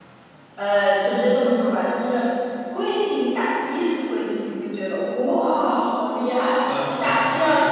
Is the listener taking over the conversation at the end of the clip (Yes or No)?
No